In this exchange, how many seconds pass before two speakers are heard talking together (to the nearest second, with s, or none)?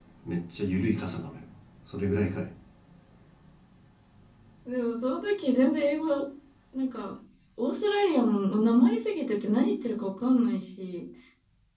none